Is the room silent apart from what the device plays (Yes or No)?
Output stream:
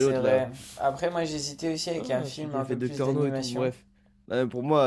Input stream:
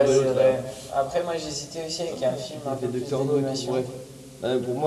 Yes